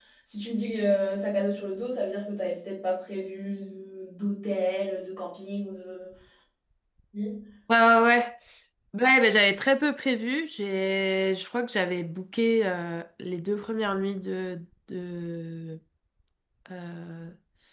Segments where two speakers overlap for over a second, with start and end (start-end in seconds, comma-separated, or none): none